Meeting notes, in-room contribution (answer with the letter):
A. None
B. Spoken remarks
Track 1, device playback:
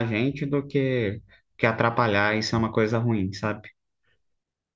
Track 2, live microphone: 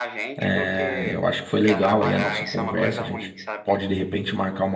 B